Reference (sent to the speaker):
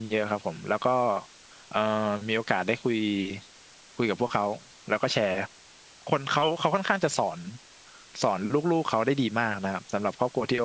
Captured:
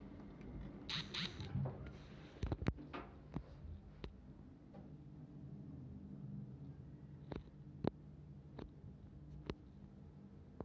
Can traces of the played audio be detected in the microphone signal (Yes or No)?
No